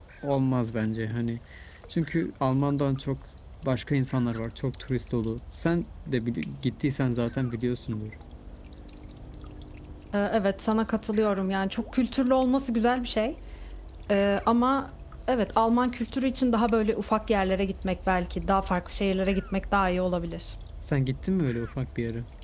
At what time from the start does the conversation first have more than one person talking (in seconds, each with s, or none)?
none